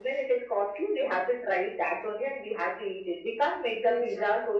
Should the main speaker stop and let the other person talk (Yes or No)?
No